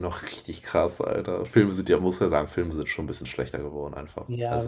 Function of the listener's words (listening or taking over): taking over